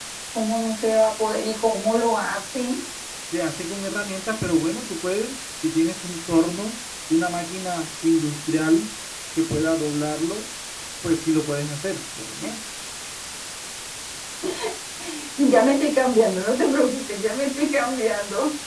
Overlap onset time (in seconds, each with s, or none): none